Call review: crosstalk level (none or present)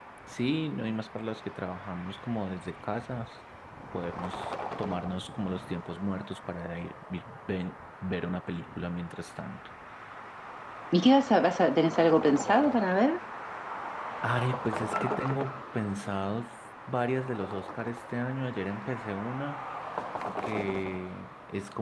none